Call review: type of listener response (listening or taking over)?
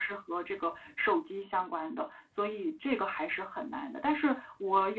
listening